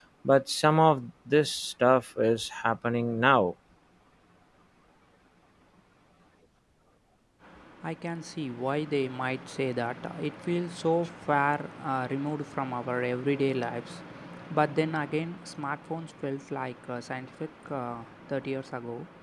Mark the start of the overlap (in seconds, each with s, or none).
none